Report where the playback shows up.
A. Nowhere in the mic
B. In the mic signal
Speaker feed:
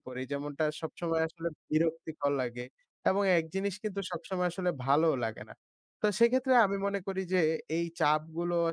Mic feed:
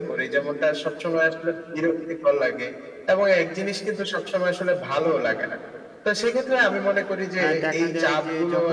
B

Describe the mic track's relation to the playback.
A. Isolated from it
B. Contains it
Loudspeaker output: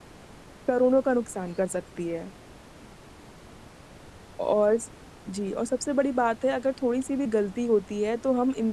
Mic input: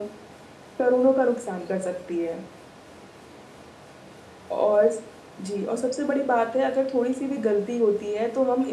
B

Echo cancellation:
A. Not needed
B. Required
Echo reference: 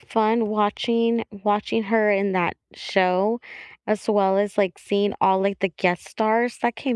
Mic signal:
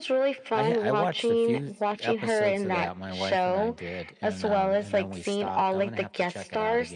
B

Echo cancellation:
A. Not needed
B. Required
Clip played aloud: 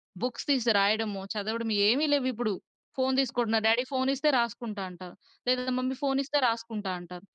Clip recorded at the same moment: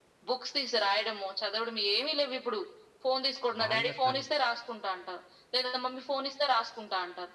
B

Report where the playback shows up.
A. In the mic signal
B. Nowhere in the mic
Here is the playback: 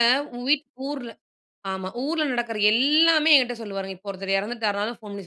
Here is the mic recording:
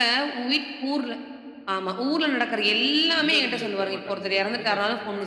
A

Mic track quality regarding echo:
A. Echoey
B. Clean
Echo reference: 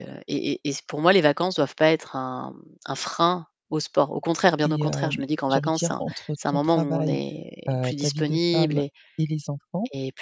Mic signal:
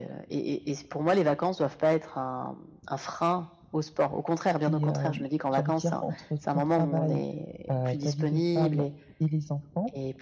A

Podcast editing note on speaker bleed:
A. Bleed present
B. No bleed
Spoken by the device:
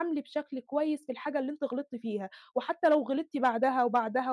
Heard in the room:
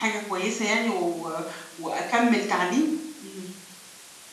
B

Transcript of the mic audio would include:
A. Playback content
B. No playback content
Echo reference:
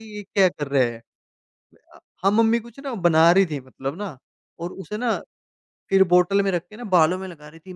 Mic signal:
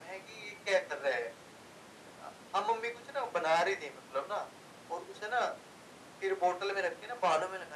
A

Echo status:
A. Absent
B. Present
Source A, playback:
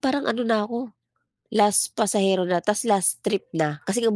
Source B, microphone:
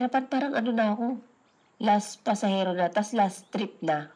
B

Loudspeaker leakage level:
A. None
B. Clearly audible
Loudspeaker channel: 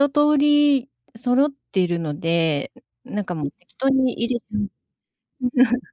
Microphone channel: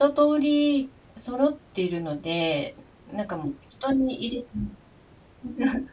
B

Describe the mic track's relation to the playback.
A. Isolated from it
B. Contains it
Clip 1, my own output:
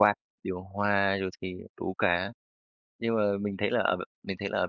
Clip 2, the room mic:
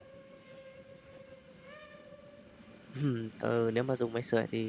A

